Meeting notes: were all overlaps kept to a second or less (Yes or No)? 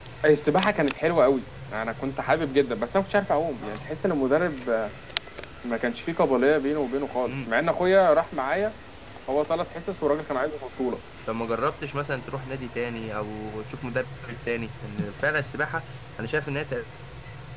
Yes